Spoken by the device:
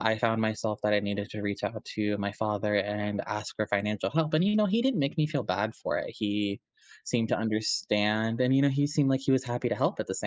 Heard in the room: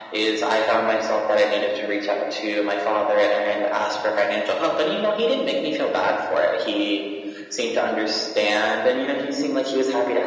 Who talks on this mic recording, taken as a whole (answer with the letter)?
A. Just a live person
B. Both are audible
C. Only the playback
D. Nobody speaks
C